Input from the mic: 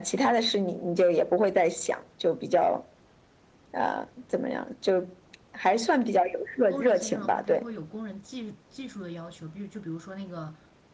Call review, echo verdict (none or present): present